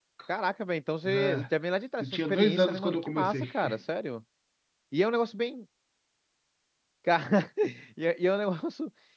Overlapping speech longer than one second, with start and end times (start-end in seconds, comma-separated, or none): 2.0-3.5